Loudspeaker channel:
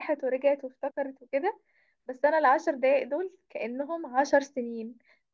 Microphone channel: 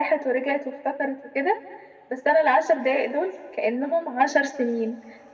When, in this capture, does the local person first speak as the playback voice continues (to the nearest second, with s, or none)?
none